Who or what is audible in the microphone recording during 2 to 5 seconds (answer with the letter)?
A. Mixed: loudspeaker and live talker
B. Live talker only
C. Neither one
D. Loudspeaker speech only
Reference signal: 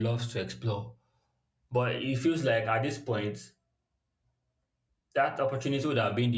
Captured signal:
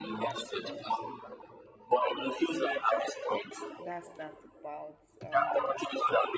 A